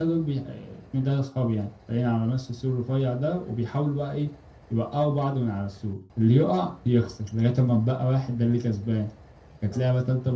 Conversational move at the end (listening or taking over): listening